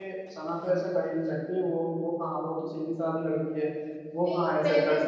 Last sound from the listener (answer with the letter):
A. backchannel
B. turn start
B